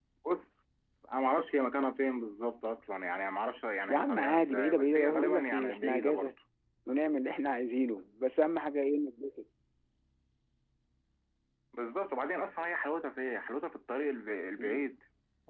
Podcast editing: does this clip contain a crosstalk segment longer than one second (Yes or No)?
Yes